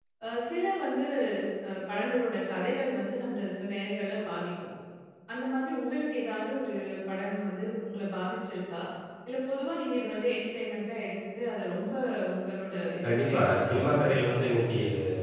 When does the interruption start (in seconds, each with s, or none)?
13.0 s